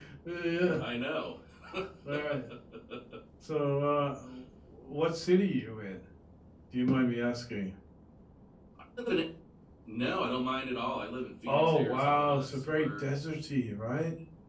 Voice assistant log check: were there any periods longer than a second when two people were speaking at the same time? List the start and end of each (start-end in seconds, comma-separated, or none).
11.5-13.0